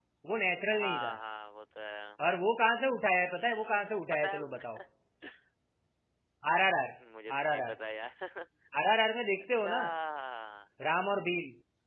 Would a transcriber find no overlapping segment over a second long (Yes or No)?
No